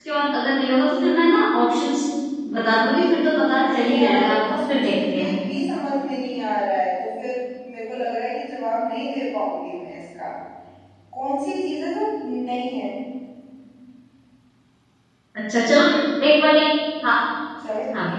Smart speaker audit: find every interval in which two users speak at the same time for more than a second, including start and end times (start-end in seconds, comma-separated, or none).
3.5-5.3